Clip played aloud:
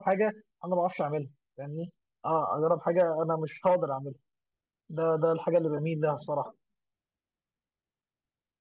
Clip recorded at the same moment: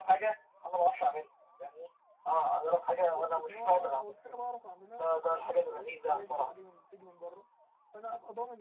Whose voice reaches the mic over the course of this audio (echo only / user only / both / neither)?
both